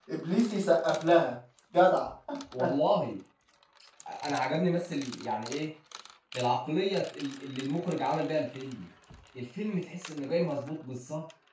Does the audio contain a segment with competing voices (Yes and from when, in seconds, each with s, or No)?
No